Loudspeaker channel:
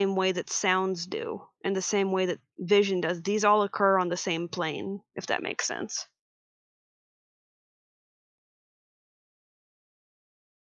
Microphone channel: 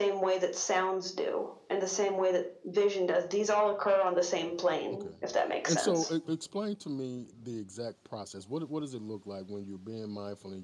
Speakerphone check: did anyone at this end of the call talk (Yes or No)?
Yes